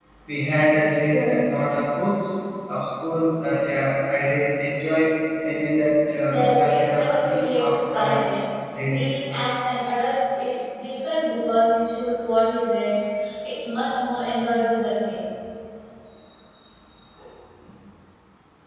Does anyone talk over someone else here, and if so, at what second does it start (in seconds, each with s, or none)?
6.3 s